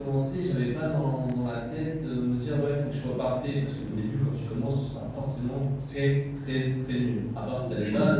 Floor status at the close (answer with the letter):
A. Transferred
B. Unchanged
A